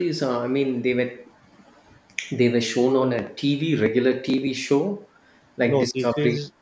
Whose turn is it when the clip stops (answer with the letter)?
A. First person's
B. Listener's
B